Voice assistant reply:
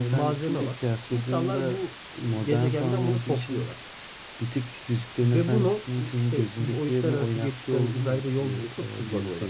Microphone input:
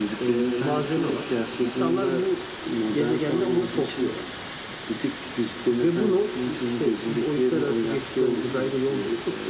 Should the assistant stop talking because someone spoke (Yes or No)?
No